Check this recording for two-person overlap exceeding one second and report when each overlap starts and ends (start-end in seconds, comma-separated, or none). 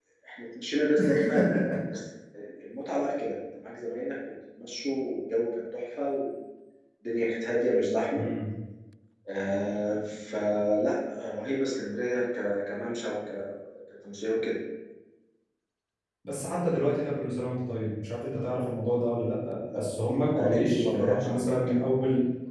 20.3-21.6